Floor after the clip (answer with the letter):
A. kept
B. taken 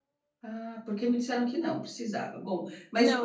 B